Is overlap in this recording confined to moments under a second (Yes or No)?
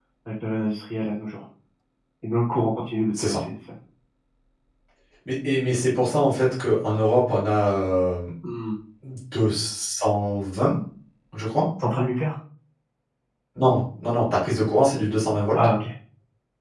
Yes